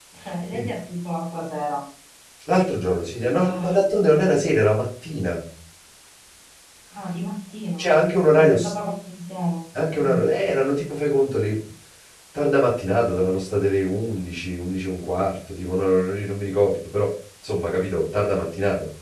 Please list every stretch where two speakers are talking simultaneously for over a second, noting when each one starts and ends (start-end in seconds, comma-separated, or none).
none